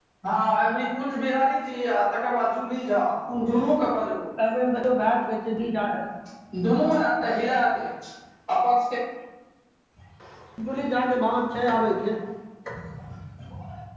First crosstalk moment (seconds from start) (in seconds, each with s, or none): none